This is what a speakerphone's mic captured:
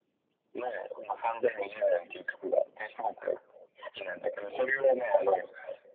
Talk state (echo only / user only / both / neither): echo only